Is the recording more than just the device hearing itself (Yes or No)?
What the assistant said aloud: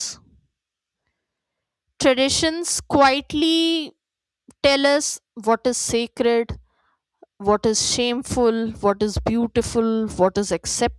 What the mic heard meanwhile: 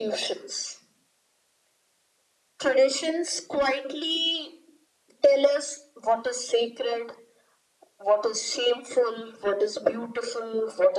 No